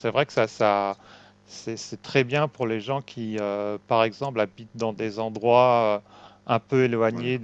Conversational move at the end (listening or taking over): listening